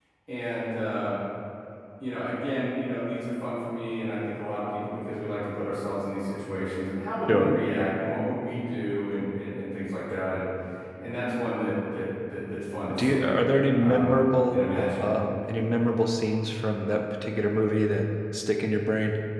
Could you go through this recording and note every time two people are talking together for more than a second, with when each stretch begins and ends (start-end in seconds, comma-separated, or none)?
13.8-15.1